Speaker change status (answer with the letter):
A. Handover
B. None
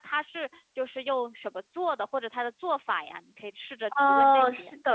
A